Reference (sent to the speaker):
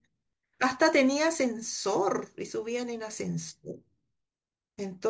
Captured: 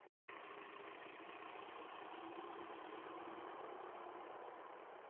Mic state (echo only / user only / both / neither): neither